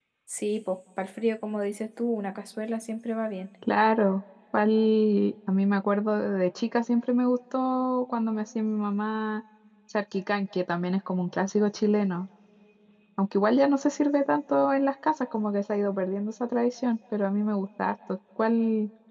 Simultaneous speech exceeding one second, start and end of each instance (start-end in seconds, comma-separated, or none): none